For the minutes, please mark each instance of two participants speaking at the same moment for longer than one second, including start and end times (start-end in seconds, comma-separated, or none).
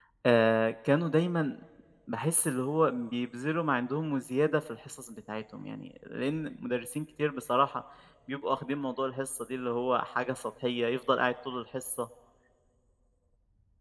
none